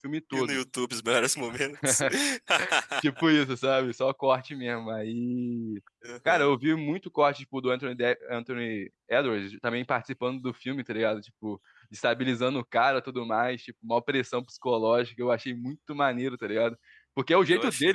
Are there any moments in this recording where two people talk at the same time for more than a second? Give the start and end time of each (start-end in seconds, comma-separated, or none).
none